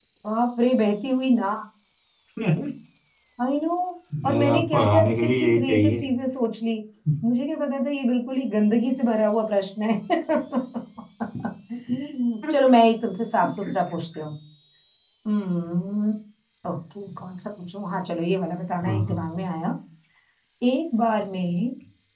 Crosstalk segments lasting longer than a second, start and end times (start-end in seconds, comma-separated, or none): 4.3-6.0